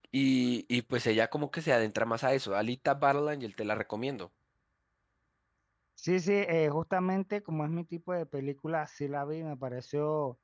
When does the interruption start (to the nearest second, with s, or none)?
none